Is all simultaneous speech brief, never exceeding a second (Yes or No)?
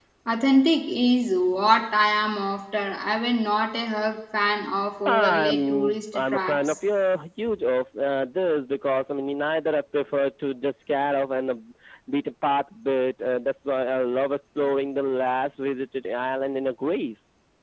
No